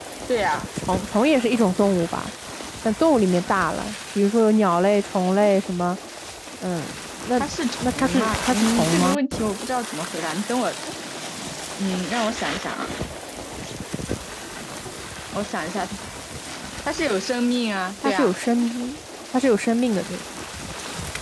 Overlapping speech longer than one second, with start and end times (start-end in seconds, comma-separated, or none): 7.8-9.2